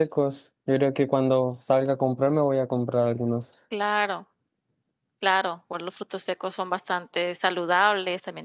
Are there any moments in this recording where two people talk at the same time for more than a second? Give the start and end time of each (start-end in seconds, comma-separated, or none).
none